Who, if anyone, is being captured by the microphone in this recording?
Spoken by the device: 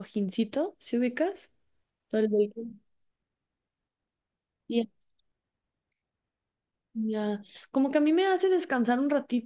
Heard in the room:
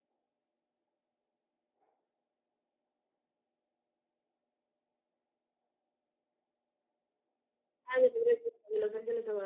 user only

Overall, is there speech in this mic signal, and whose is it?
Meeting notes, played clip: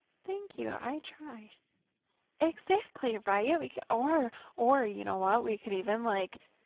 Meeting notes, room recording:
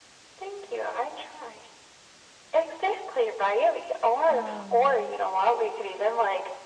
both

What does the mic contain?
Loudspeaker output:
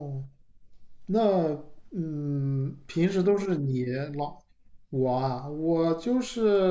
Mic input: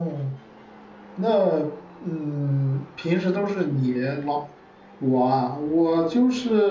echo only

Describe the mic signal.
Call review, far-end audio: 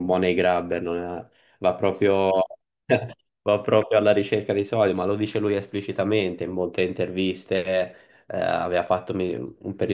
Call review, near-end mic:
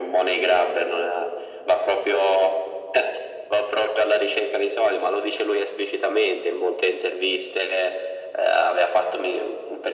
echo only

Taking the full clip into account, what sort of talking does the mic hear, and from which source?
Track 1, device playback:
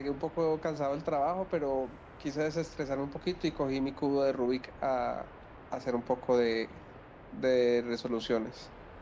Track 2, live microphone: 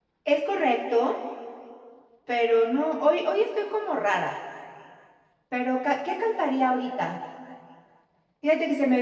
user only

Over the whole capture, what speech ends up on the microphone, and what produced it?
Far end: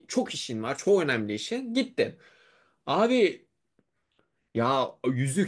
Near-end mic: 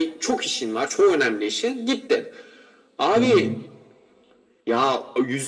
both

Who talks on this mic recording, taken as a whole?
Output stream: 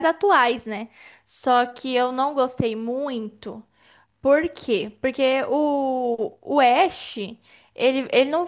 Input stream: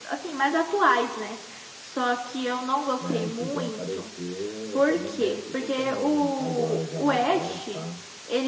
both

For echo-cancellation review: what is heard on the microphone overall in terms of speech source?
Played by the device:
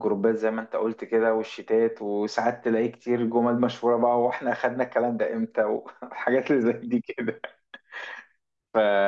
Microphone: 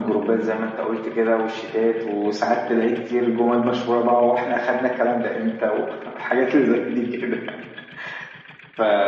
echo only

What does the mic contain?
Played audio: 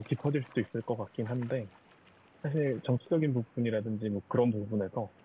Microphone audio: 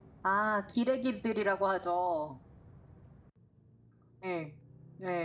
user only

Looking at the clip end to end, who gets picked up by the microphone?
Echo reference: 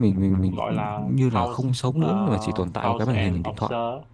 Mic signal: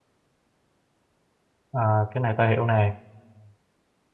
user only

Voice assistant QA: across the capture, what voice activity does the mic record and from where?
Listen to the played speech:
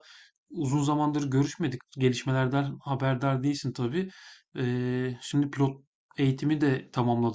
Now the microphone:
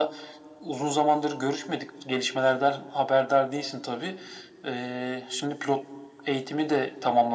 echo only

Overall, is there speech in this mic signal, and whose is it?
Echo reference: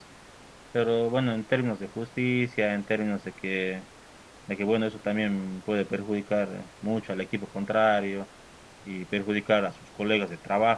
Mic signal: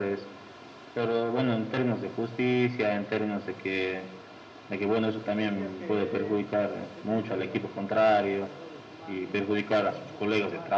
both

